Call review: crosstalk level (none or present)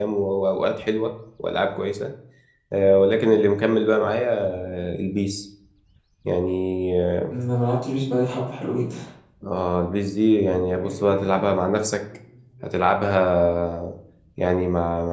none